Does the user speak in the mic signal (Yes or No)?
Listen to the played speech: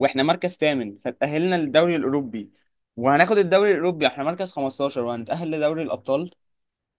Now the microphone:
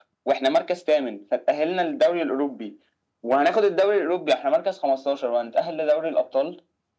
No